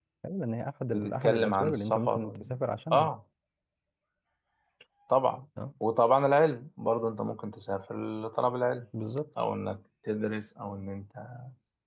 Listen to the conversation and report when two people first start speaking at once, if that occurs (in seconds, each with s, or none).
0.9 s